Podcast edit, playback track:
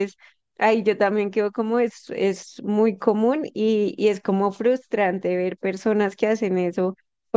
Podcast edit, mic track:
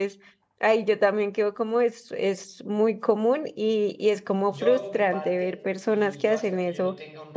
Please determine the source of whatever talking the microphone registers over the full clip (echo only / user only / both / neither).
both